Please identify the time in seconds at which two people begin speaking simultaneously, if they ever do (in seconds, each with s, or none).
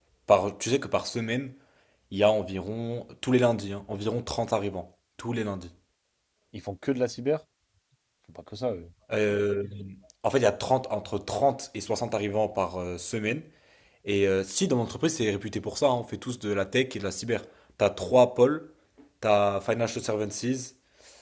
none